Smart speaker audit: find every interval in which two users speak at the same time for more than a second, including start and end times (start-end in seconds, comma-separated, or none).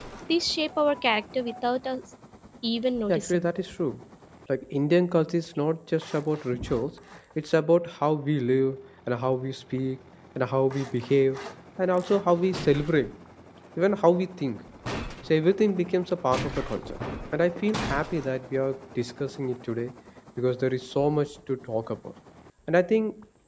none